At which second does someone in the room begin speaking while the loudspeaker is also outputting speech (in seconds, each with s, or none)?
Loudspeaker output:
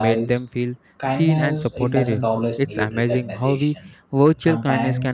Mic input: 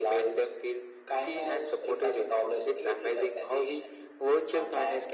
none